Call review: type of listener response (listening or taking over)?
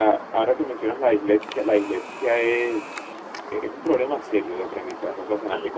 taking over